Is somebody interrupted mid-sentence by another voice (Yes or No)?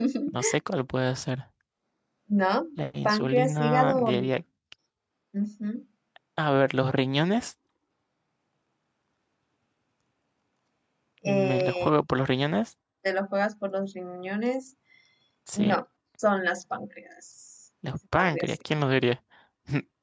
Yes